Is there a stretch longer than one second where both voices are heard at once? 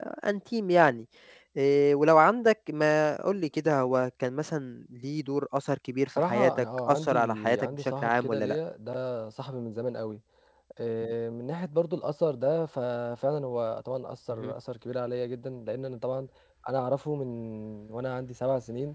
Yes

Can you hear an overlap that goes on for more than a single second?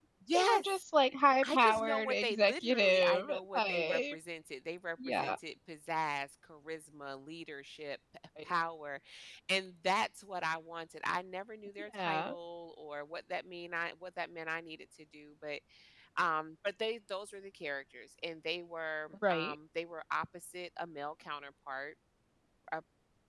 Yes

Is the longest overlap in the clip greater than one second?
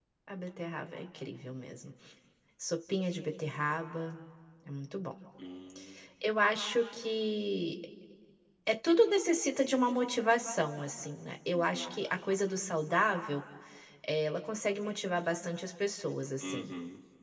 No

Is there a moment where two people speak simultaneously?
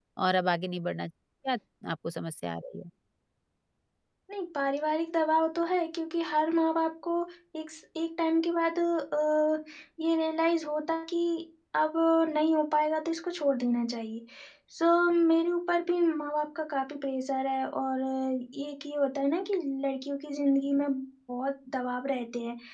No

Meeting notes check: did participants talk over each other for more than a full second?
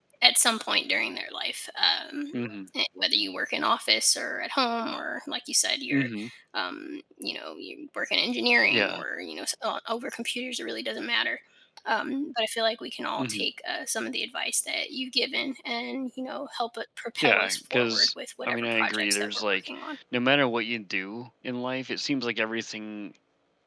Yes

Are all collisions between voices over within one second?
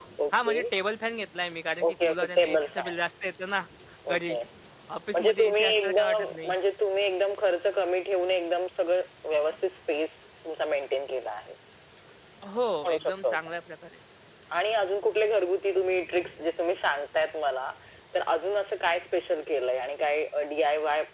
No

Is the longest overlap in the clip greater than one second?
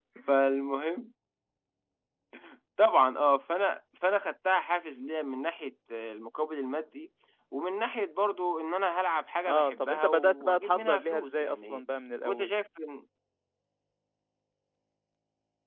Yes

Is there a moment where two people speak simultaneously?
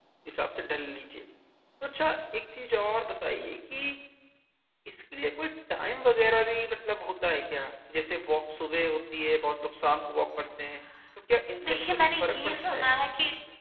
Yes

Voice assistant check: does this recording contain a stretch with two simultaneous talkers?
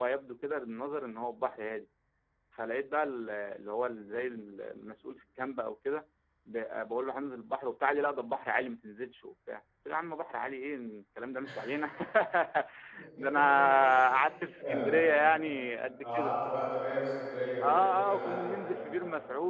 Yes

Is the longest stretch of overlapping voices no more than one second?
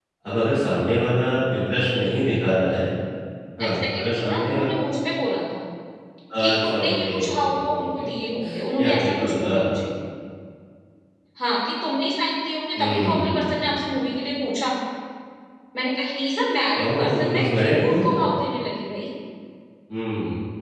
No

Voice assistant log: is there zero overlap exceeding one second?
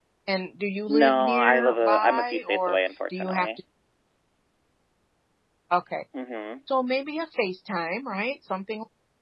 No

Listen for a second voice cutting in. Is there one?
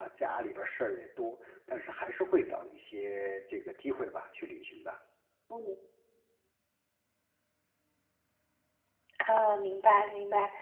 No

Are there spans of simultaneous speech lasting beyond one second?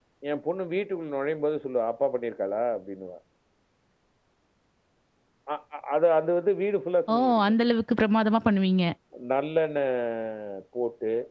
No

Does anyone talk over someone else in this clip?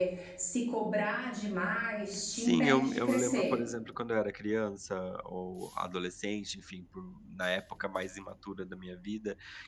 Yes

